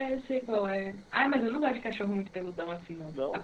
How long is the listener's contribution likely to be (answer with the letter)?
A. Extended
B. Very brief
B